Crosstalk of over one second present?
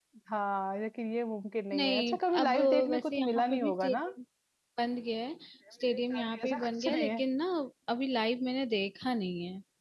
Yes, from 1.7 s

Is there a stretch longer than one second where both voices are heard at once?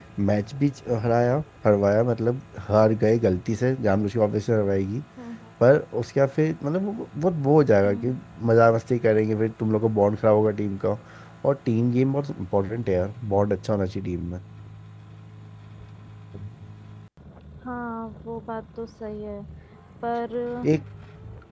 No

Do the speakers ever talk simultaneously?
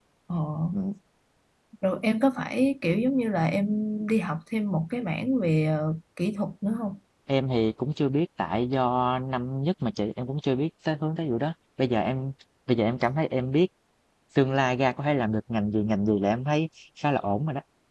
No

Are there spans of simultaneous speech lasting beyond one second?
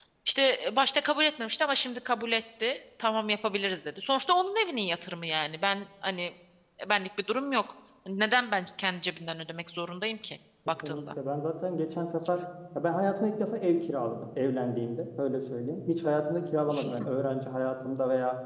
No

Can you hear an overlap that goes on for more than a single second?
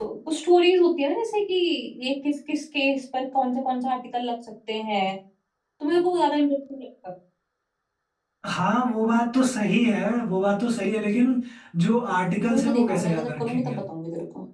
Yes, from 12.5 s

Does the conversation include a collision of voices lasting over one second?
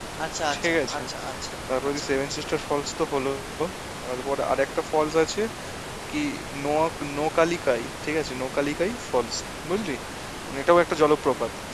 No

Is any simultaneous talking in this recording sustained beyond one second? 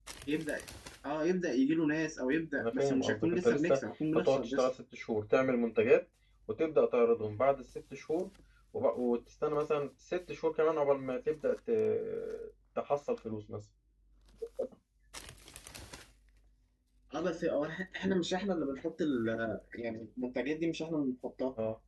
Yes, from 2.6 s

